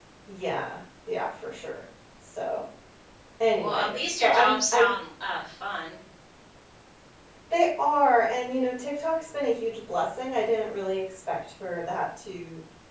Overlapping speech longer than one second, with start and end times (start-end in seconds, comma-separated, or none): 3.5-4.8